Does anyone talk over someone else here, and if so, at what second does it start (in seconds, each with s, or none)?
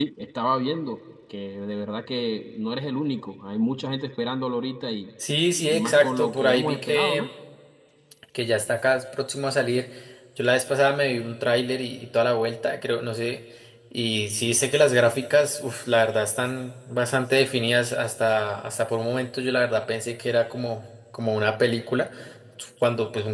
5.7 s